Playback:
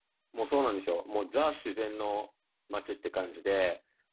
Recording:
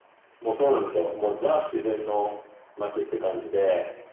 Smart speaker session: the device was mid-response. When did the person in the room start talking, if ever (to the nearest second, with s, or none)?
none